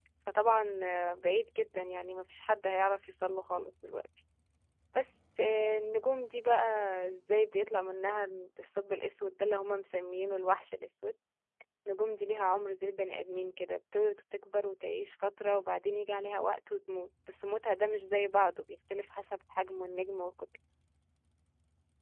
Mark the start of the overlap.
none

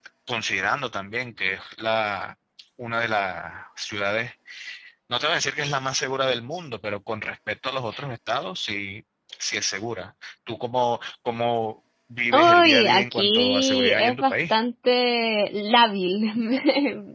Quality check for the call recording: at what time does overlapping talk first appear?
12.3 s

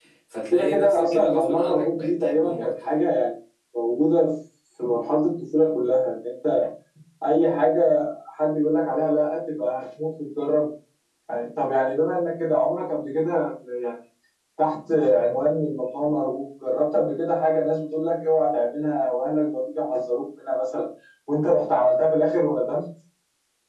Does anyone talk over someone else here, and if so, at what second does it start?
0.5 s

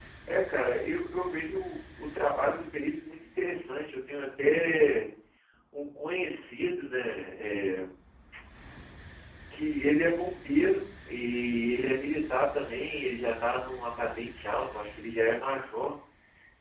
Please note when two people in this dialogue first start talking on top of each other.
none

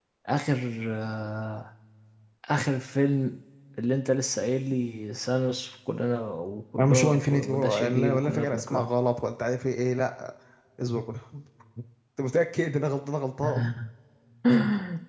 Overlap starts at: 6.8 s

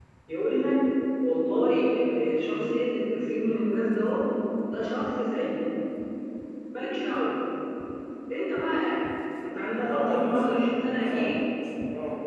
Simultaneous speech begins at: 9.8 s

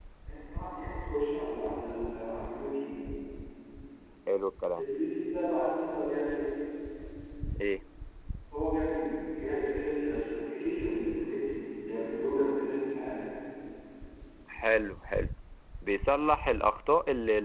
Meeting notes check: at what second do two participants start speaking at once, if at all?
none

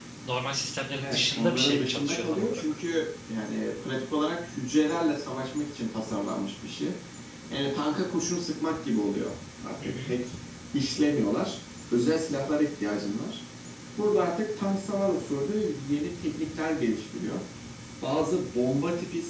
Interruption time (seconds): 1.0 s

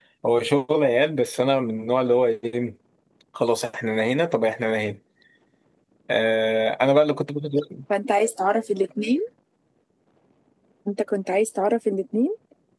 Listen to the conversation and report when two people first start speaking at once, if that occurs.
none

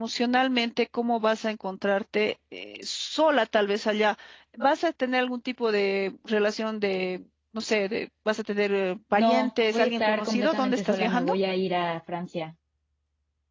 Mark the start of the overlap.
9.1 s

